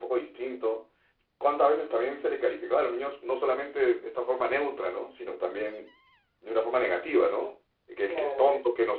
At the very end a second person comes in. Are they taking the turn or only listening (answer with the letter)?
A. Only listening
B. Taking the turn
A